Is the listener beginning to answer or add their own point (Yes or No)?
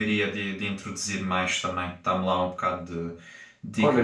Yes